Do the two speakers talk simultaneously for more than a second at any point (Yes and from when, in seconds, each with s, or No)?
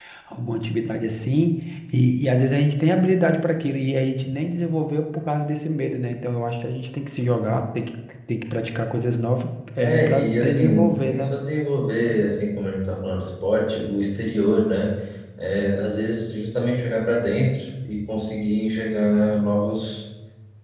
Yes, from 9.8 s